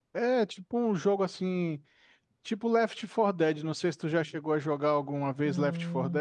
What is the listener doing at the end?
taking over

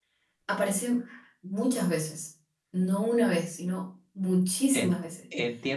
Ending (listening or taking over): taking over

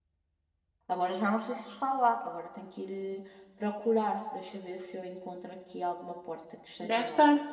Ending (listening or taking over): taking over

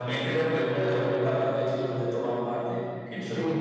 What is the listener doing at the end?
taking over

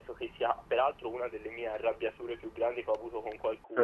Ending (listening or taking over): listening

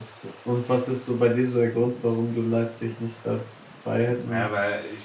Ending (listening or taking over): taking over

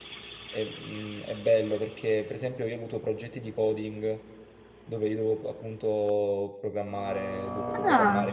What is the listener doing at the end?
listening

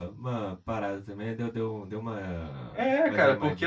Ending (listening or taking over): taking over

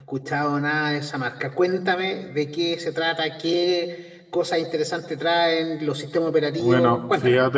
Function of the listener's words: taking over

